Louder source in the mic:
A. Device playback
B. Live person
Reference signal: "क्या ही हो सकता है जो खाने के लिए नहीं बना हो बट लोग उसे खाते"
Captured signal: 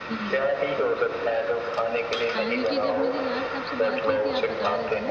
A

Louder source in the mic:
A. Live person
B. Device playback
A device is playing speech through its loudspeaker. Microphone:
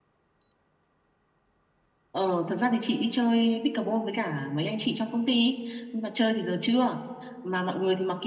B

